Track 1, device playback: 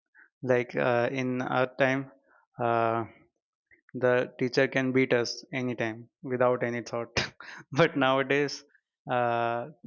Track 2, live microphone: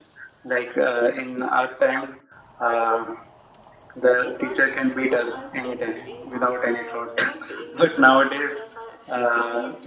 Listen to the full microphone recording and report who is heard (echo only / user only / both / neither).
both